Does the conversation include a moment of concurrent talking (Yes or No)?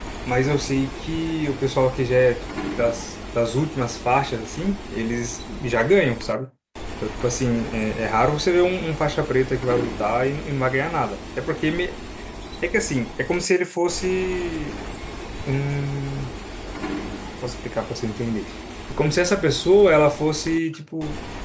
No